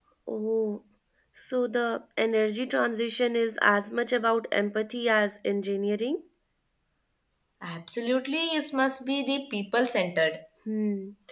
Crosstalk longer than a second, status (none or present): none